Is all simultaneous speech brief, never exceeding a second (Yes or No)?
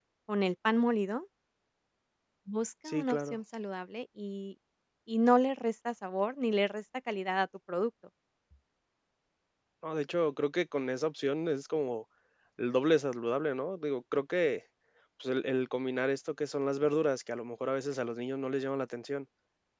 Yes